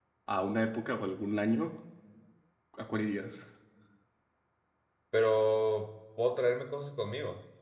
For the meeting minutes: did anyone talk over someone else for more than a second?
No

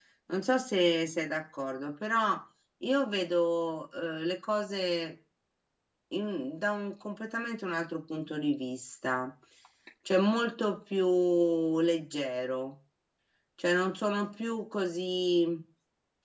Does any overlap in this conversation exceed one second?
No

